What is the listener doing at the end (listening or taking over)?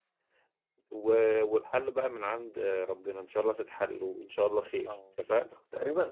taking over